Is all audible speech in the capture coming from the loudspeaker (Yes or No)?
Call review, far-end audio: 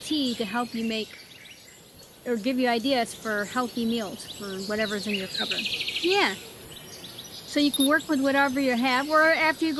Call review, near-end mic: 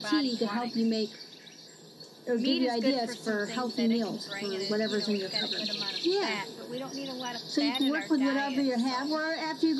No